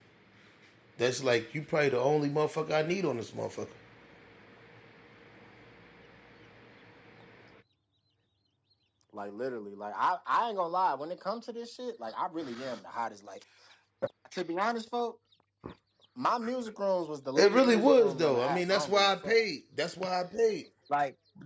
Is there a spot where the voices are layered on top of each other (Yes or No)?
Yes